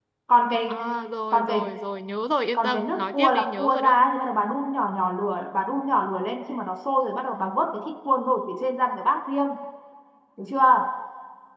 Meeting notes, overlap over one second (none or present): present